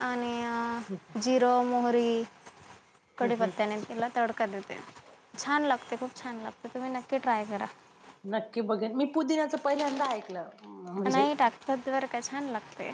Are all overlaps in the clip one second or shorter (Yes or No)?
Yes